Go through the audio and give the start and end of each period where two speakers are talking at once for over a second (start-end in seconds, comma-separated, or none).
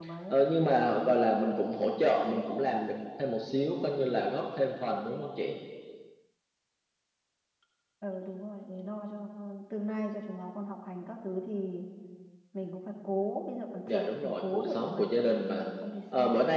13.9-15.1